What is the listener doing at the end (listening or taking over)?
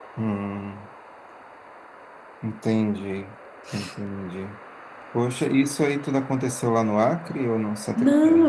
taking over